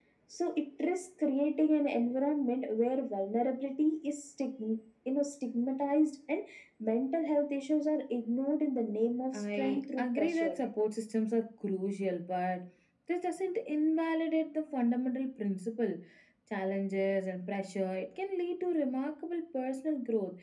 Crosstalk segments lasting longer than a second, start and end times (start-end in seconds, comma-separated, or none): 9.3-10.6